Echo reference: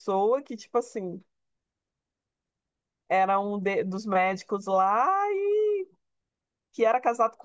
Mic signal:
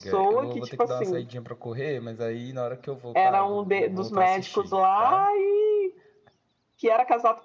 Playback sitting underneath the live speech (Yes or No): No